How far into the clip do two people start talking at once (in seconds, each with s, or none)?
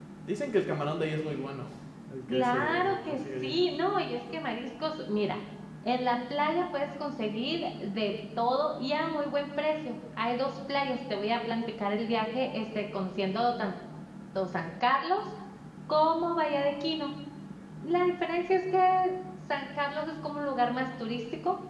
2.3 s